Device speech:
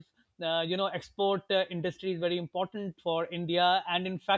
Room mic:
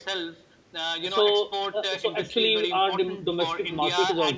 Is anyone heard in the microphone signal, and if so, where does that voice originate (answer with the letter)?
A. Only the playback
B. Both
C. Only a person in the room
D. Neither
B